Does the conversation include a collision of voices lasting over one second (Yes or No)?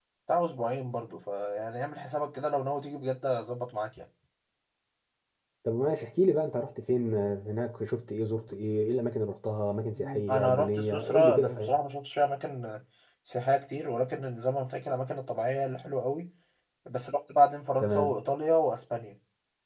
Yes